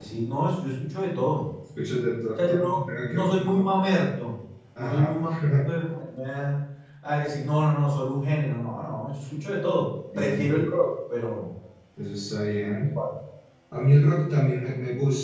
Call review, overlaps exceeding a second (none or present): present